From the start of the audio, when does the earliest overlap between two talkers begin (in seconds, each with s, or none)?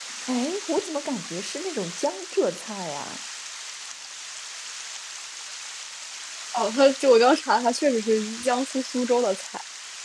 none